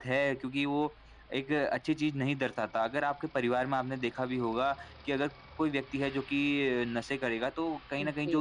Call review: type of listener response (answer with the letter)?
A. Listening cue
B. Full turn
A